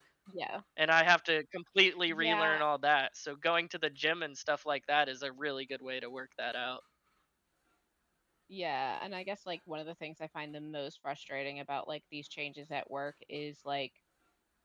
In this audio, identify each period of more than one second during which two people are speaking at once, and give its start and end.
none

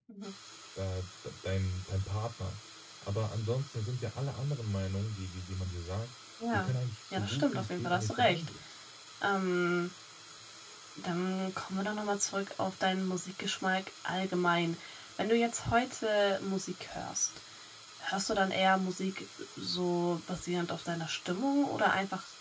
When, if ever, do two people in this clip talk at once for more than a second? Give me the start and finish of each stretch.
7.1-8.4

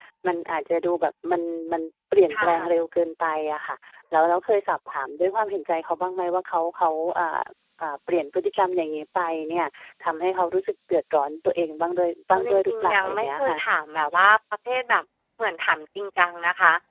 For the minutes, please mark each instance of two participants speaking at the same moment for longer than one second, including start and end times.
12.3-13.6

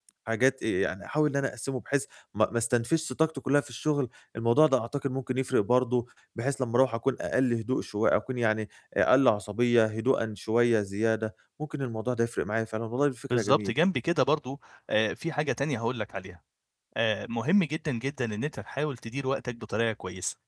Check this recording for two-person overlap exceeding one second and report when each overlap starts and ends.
none

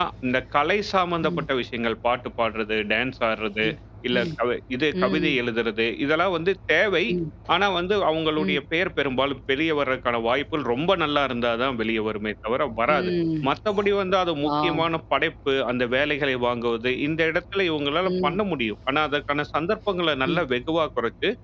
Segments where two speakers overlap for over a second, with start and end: none

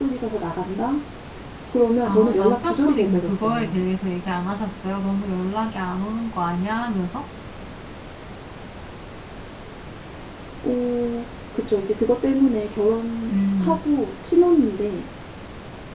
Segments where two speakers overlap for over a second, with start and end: 2.0-3.9

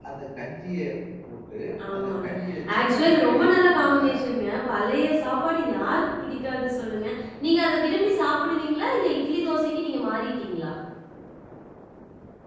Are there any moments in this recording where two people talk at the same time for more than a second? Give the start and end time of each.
2.7-4.1

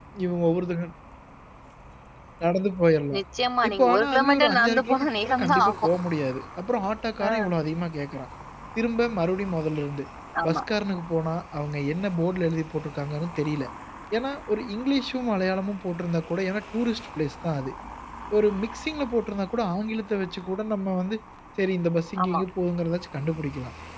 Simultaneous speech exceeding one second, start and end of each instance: 3.7-5.9

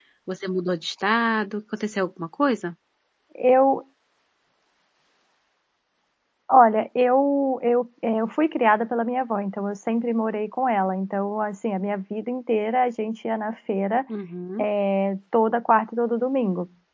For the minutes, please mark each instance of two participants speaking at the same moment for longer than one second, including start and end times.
none

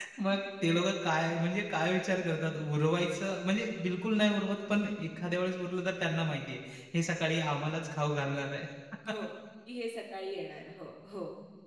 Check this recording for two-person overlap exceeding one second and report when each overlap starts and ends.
none

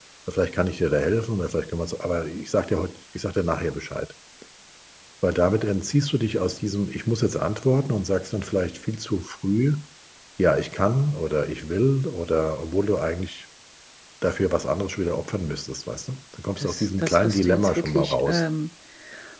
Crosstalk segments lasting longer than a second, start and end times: 16.6-18.4

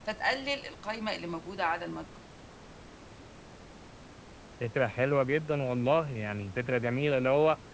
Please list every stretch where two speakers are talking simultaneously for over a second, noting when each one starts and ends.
none

